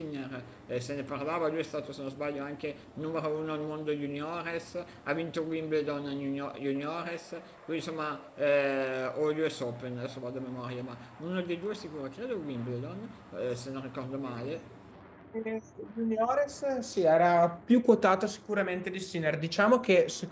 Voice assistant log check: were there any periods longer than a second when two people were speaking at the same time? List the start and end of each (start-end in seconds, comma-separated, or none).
none